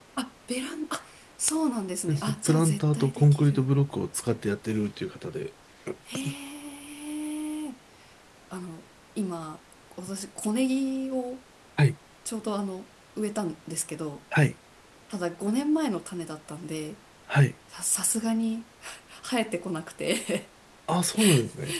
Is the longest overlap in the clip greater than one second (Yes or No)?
Yes